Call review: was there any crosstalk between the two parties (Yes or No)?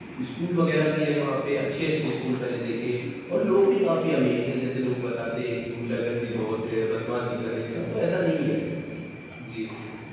No